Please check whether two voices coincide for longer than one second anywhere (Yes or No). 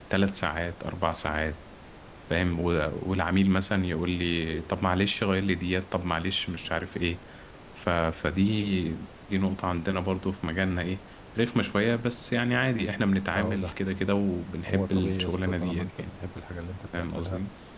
Yes